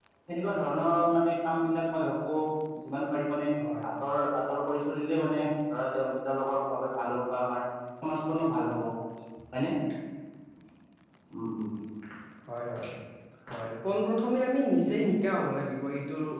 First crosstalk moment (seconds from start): none

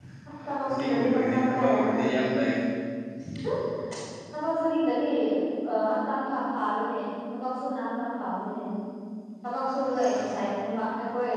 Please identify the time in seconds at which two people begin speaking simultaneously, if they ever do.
1 s

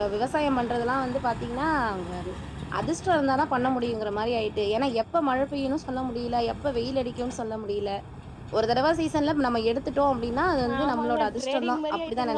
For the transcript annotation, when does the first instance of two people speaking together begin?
11 s

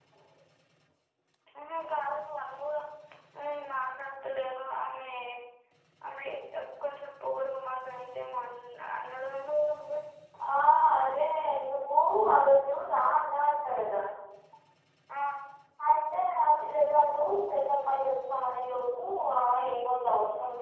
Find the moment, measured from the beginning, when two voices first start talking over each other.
none

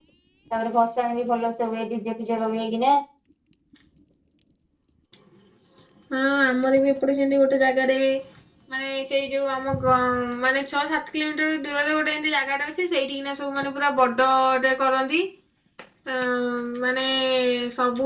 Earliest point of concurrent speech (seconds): none

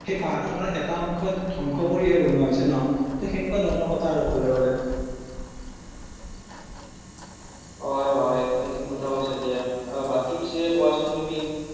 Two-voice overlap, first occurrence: none

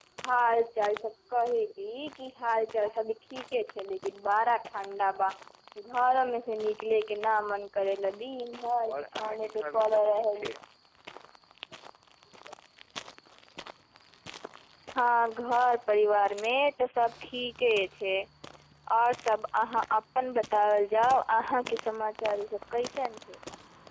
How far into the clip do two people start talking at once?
9 s

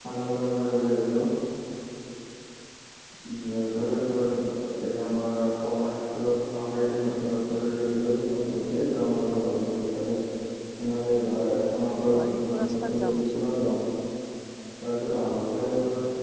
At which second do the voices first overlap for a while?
12 s

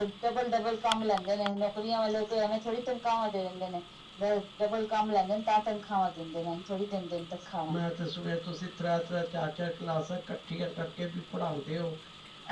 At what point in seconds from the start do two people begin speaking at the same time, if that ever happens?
none

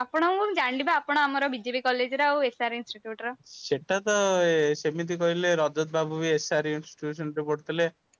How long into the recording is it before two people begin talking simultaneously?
none

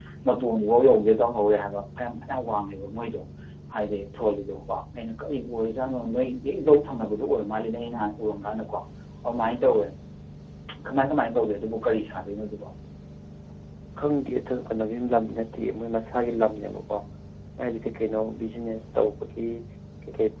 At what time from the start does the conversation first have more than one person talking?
none

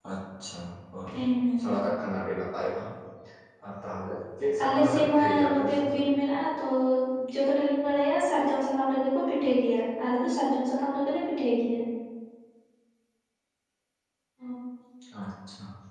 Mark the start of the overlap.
5 s

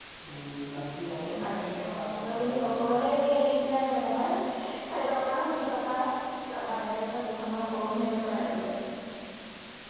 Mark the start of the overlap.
1 s

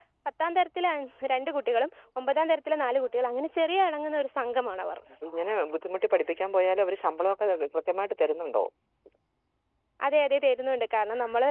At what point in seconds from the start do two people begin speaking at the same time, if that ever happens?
none

